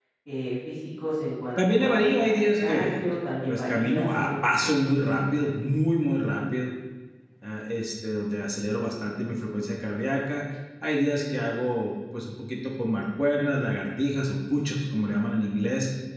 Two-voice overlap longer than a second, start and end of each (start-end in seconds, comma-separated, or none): 1.6-3.0, 3.5-4.7